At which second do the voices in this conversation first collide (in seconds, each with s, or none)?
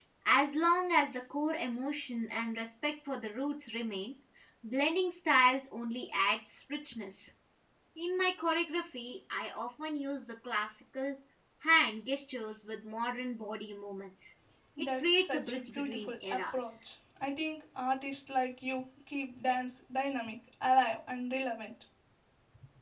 15.0 s